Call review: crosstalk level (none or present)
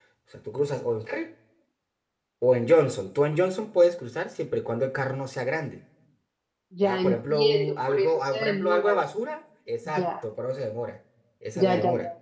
present